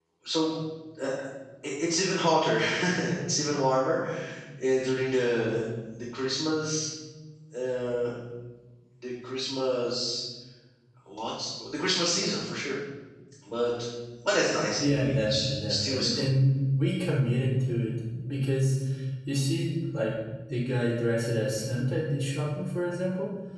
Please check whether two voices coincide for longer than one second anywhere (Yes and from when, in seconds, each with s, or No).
Yes, from 14.8 s